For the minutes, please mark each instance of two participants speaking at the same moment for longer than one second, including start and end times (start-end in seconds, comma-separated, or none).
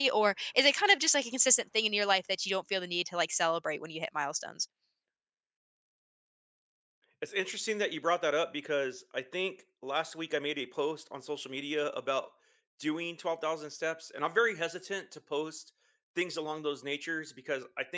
none